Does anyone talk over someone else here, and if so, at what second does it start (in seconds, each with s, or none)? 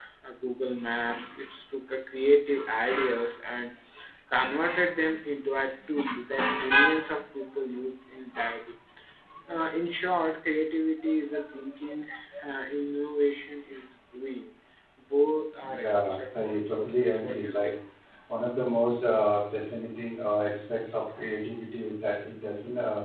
15.8 s